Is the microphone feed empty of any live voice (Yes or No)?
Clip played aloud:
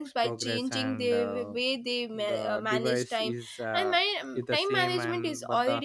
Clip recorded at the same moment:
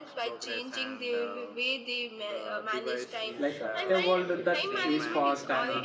No